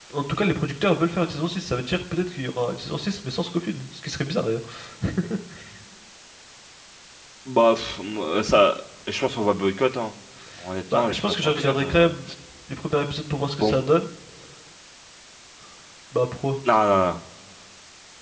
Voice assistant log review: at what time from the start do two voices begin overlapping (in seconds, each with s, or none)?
10.9 s